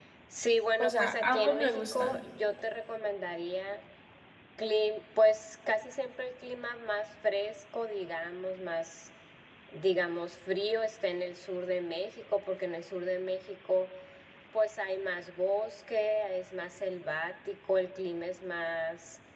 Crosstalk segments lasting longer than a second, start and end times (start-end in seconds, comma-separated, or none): 0.8-2.2